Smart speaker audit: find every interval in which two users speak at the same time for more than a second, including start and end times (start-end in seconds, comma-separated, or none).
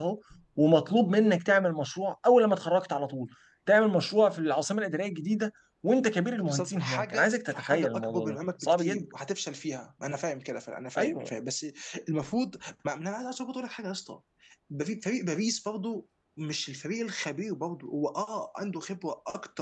6.4-9.0